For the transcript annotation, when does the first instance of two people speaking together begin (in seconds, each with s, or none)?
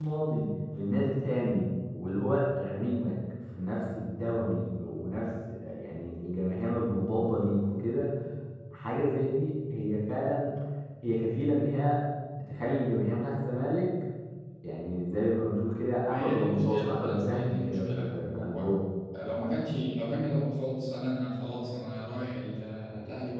16.1 s